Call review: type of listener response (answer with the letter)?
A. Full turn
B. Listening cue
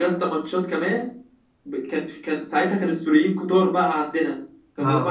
B